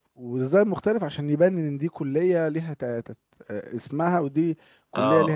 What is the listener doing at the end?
taking over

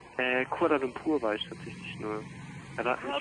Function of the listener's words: taking over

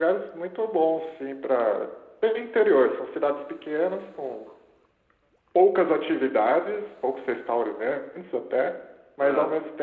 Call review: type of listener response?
listening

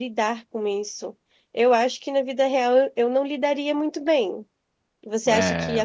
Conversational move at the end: listening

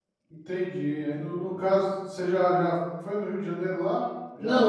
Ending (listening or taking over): taking over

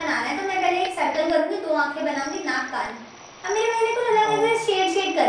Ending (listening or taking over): listening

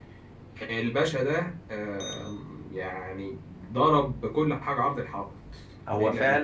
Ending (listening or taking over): taking over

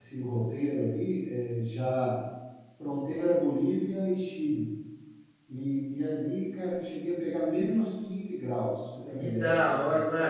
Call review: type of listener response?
taking over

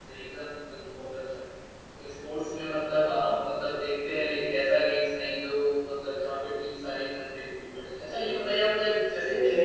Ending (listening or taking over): listening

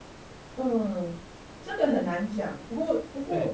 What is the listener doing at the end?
listening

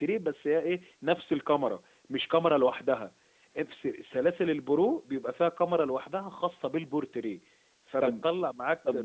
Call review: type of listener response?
taking over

